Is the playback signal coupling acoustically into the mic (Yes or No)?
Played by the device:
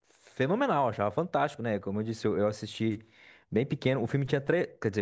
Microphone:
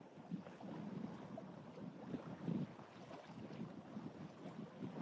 No